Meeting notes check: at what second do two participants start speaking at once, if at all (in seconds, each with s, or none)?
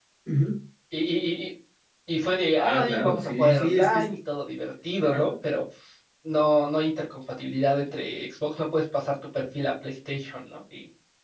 2.6 s